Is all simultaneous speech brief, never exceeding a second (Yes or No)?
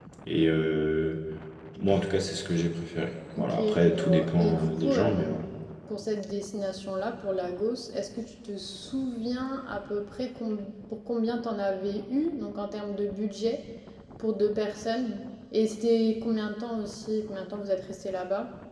No